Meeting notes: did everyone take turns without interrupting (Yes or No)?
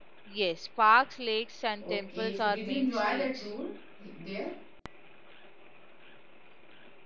No